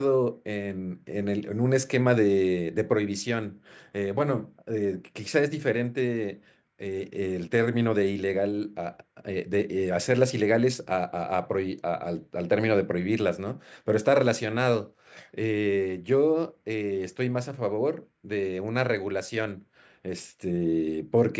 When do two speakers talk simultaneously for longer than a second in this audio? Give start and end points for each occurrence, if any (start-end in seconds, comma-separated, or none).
none